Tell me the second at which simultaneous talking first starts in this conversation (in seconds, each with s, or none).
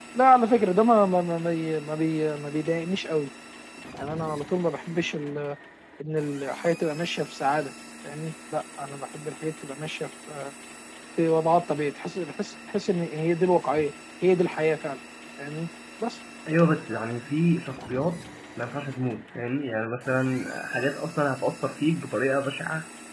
none